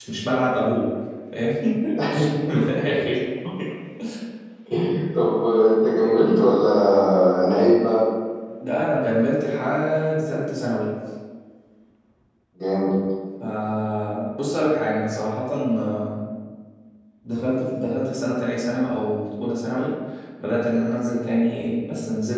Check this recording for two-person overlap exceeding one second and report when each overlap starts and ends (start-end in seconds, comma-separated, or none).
none